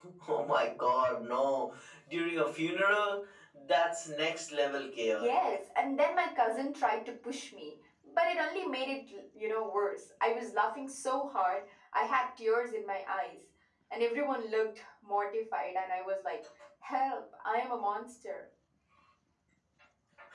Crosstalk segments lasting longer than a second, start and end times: none

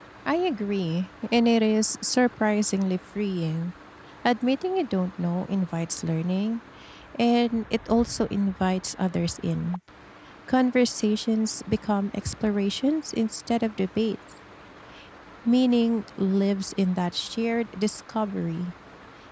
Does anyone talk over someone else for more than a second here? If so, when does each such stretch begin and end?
none

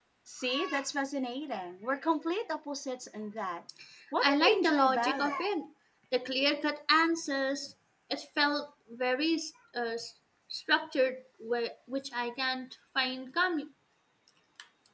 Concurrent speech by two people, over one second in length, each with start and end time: 4.2-5.4

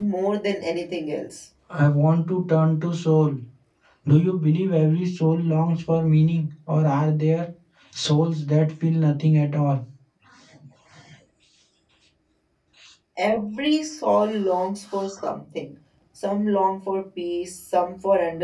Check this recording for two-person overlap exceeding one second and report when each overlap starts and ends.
none

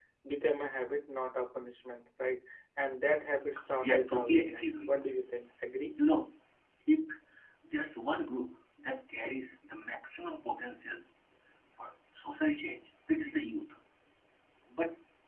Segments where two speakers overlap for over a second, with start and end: 3.8-5.0

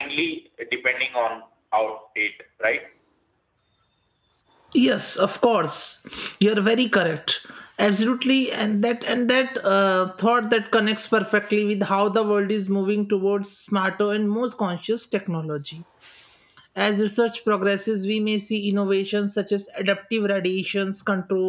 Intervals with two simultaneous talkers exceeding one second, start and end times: none

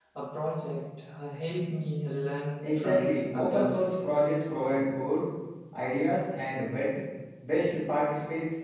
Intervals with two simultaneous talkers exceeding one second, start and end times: 2.6-3.9

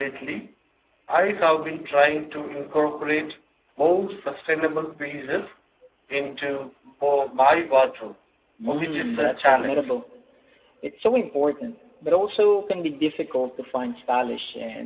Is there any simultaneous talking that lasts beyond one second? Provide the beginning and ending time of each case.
8.7-9.9

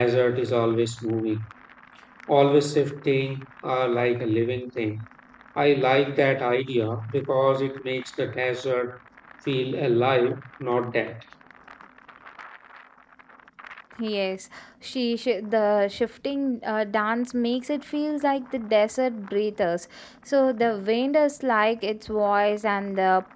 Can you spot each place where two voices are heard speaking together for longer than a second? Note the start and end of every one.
none

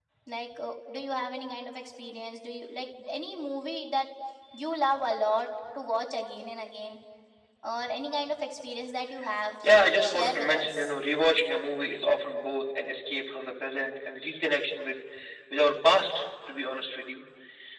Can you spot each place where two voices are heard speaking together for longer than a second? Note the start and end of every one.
9.7-10.9

